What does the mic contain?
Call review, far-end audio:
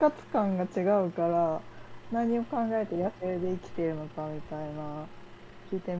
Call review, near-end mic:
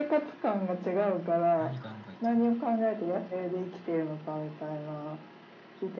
both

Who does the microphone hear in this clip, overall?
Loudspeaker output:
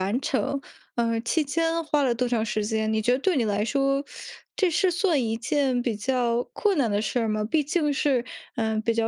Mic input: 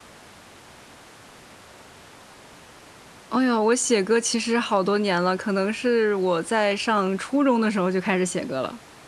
user only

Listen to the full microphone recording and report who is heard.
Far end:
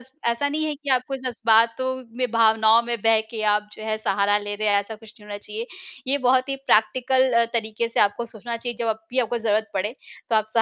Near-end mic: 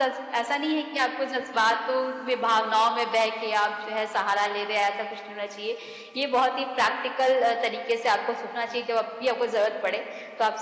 echo only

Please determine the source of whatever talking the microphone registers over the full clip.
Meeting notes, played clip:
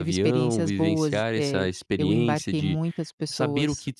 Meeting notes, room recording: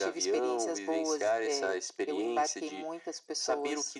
echo only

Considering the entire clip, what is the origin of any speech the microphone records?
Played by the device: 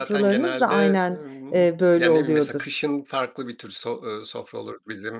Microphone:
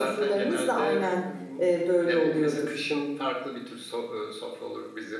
echo only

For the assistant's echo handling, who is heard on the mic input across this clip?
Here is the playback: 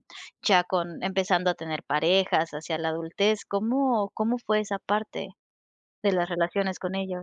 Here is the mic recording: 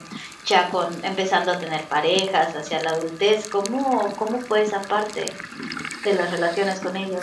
echo only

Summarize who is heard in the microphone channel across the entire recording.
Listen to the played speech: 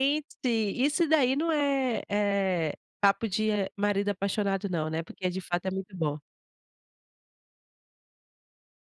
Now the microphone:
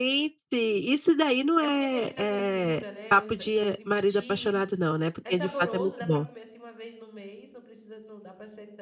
both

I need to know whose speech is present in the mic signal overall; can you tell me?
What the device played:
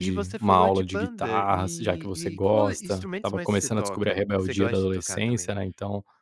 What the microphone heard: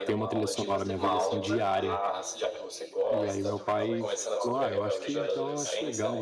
both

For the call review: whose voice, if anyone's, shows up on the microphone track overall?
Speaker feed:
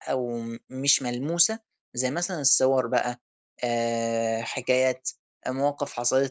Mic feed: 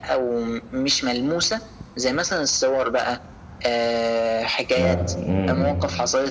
both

